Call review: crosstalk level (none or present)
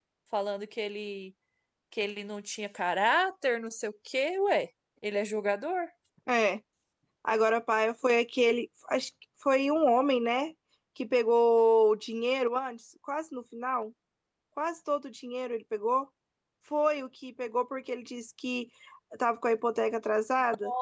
none